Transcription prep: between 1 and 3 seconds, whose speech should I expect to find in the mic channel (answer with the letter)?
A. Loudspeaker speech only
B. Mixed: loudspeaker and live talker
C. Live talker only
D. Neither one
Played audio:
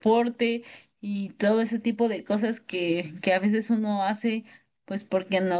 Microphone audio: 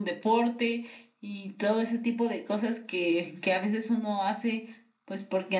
A